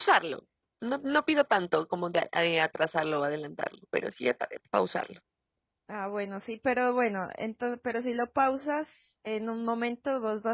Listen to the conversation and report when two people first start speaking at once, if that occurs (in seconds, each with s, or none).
none